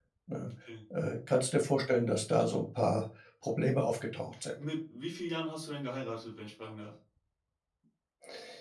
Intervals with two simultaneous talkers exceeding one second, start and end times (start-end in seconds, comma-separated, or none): none